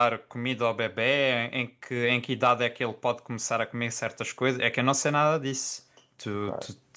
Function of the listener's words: taking over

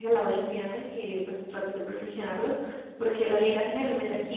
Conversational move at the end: listening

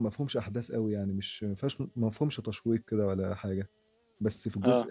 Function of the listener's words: listening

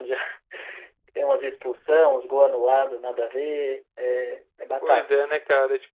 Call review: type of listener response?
taking over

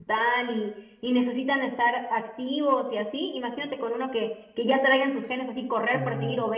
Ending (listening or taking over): listening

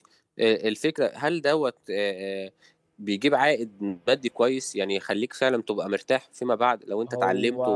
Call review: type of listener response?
listening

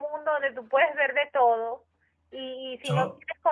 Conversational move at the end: listening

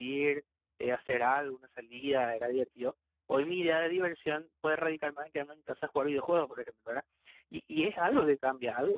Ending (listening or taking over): listening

